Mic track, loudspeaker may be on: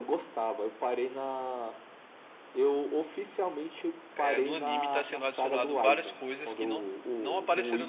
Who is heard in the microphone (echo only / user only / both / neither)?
both